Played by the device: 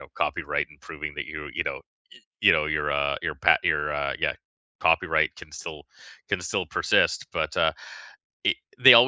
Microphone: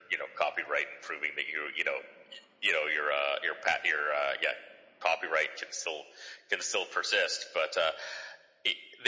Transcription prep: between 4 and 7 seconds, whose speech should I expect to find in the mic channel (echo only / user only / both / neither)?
echo only